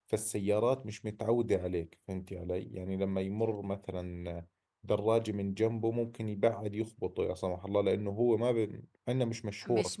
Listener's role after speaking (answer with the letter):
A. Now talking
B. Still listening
A